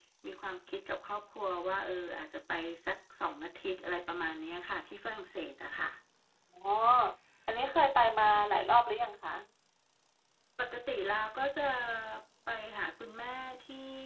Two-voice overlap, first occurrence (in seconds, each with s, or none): none